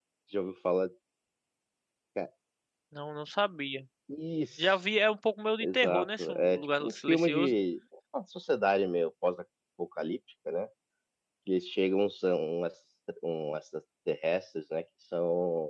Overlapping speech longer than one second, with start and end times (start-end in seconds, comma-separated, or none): 5.6-7.5